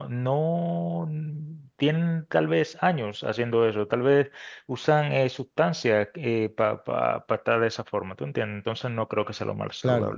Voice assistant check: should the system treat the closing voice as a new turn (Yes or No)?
No